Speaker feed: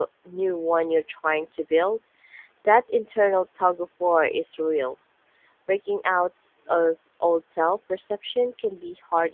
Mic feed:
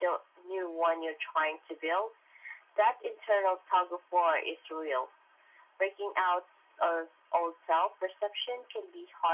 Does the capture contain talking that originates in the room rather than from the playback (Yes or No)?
No